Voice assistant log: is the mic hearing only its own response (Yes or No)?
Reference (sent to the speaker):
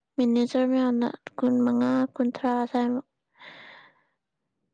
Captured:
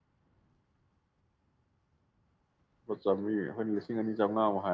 No